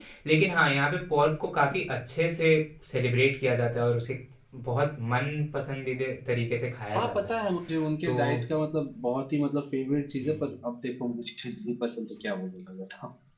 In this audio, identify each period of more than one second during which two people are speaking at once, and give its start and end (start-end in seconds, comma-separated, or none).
none